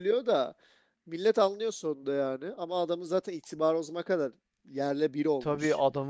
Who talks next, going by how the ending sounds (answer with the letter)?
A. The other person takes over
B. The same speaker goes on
A